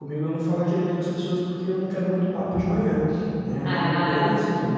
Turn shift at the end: No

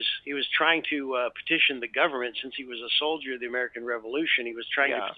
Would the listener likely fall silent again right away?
Yes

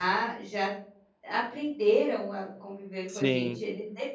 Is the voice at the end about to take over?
No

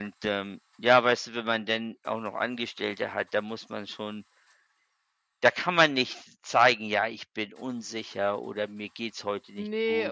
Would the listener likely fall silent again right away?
No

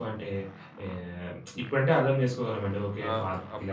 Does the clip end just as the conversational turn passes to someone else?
Yes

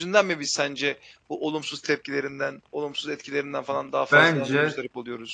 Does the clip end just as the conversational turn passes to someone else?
Yes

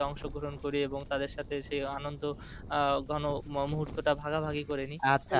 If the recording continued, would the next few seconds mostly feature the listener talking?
Yes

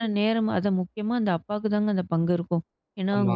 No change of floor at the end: Yes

